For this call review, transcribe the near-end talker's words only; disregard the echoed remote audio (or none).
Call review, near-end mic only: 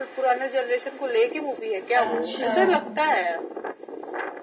अच्छा